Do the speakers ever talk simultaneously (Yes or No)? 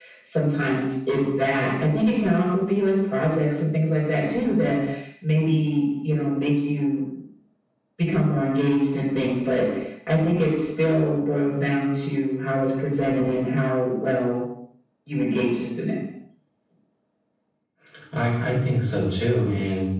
No